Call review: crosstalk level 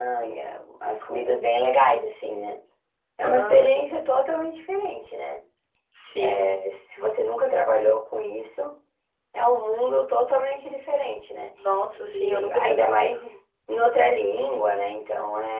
present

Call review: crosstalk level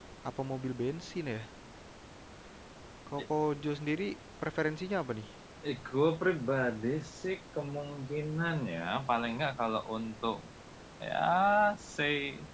none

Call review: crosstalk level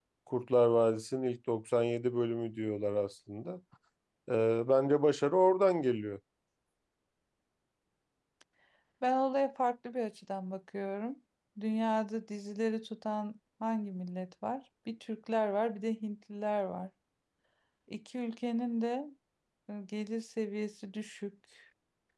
none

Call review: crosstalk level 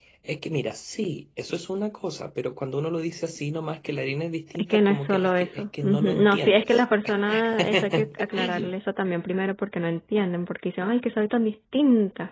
present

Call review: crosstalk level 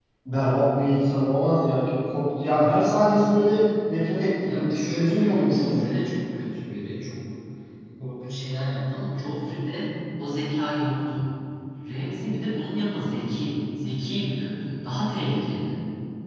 present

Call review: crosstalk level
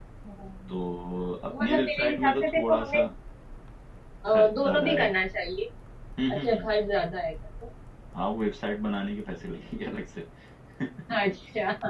present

